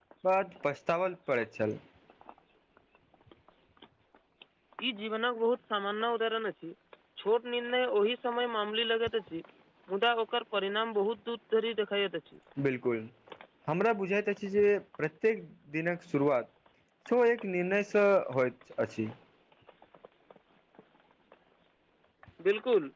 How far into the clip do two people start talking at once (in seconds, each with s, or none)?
none